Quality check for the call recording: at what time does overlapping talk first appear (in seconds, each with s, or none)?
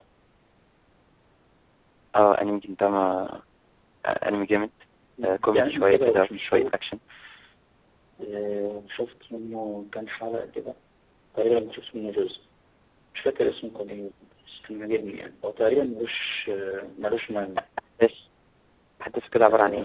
5.5 s